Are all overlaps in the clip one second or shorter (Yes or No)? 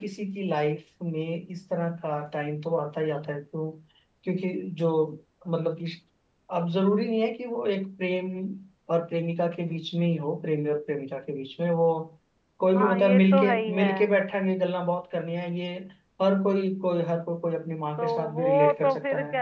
No